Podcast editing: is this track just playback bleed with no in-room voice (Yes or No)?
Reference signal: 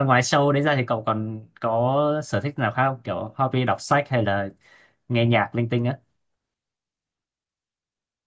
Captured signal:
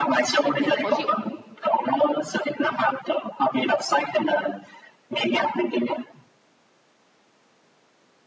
No